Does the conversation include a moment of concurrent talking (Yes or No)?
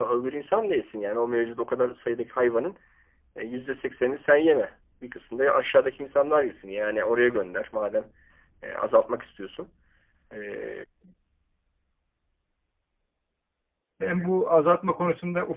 No